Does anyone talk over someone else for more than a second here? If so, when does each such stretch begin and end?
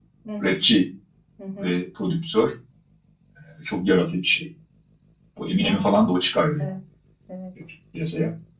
none

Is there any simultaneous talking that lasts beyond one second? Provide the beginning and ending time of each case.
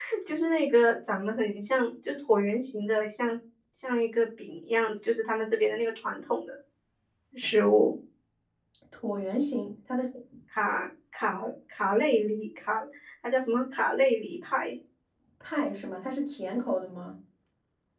none

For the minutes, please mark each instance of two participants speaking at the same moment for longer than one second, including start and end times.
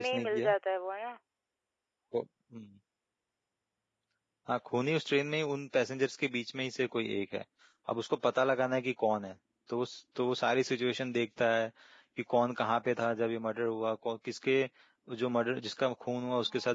none

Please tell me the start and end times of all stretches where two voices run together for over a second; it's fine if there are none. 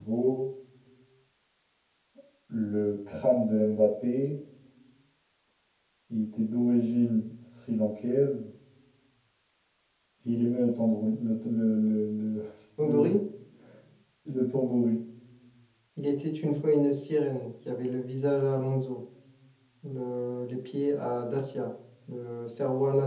none

